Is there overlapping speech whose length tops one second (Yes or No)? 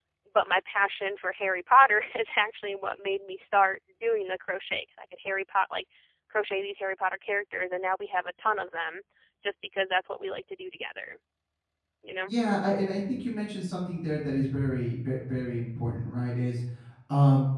No